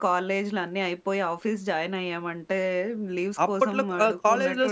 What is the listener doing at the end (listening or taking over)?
taking over